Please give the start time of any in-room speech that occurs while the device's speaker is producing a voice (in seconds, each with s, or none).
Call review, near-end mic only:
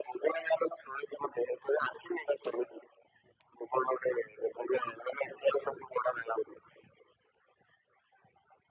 none